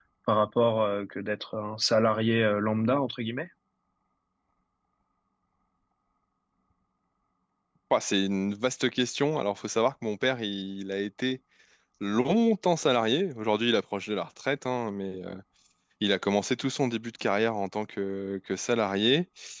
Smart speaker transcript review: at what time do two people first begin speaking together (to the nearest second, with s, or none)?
none